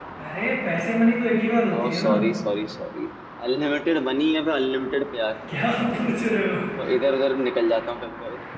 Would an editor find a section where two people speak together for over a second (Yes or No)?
No